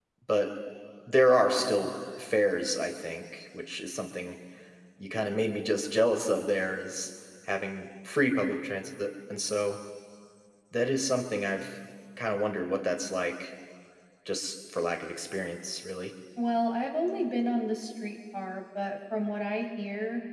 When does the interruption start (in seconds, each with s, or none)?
none